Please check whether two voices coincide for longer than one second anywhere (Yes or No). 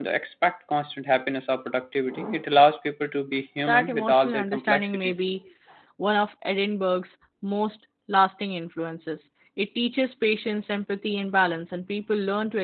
Yes